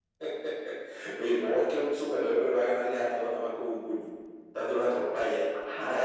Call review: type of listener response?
taking over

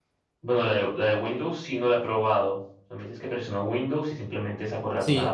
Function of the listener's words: taking over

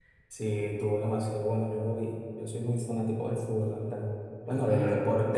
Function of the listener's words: listening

